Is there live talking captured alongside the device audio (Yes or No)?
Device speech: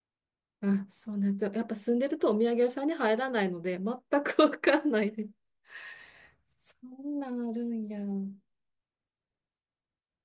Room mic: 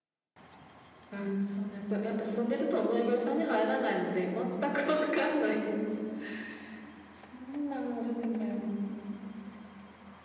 No